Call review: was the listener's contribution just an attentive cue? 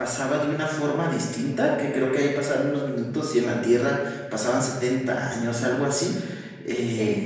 No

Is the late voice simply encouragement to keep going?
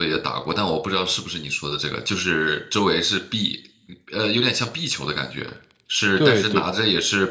Yes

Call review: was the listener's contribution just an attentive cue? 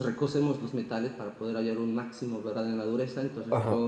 Yes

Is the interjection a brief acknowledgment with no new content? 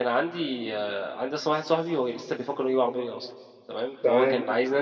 Yes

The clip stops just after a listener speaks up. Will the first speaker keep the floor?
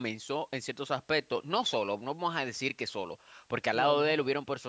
Yes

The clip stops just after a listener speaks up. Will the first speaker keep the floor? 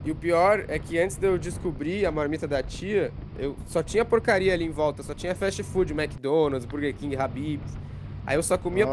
Yes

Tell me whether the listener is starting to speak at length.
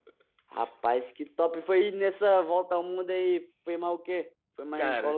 Yes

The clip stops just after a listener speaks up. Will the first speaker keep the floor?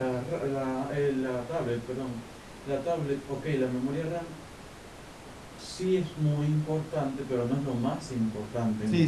No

